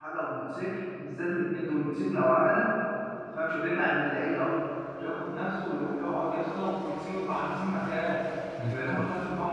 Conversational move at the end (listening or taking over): listening